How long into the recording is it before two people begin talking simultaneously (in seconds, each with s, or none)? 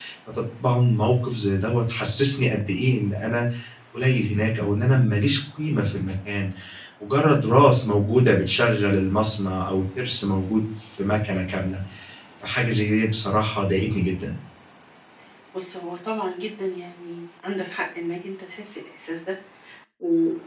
none